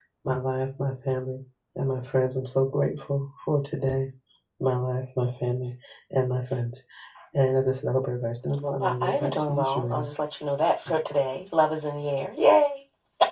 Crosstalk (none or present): present